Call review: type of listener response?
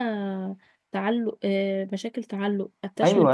taking over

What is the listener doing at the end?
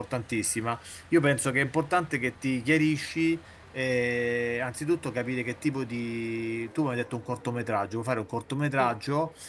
listening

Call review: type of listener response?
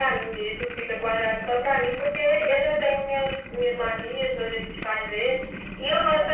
listening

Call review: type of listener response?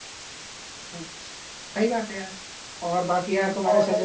listening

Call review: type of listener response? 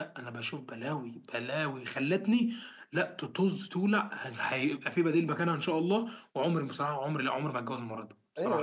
taking over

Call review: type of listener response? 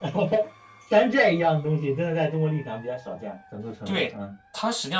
taking over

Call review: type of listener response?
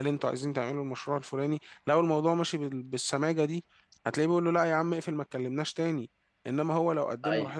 listening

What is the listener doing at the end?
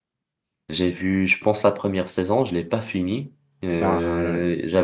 listening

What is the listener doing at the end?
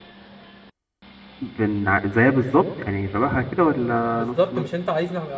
taking over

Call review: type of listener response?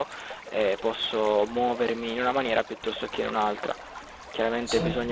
listening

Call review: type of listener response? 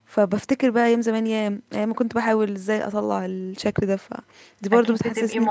taking over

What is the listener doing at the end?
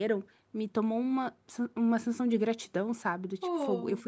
listening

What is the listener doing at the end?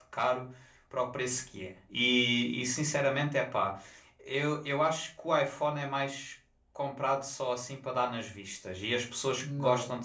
listening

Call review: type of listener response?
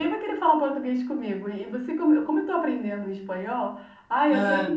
listening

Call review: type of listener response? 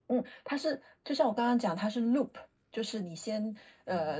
listening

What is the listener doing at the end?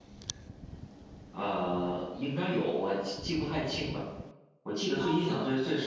listening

